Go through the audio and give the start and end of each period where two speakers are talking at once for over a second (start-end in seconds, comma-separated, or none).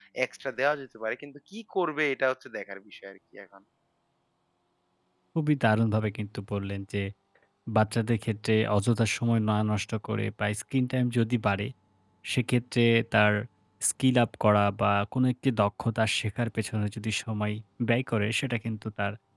none